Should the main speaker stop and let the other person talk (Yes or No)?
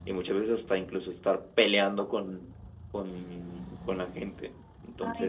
Yes